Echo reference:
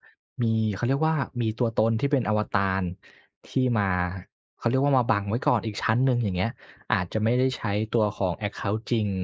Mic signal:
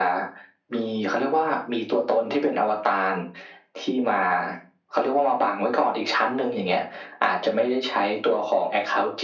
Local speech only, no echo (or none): none